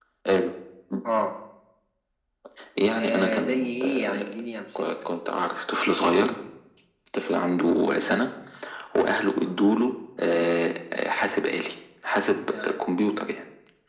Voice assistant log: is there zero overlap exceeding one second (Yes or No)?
No